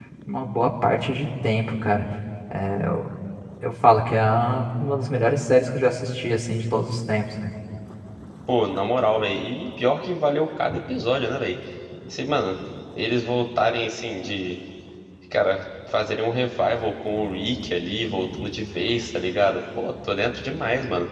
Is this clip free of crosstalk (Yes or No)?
Yes